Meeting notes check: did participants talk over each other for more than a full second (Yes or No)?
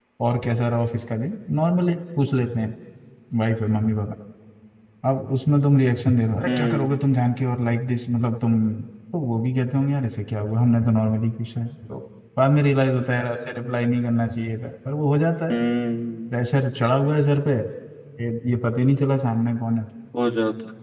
No